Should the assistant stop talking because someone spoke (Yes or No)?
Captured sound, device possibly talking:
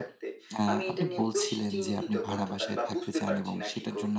Yes